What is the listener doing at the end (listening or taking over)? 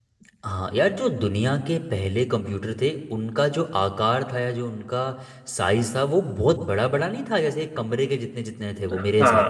taking over